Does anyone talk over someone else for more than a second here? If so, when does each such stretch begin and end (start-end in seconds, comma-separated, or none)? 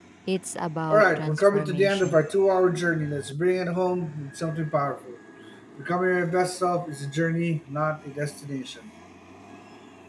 0.9-2.3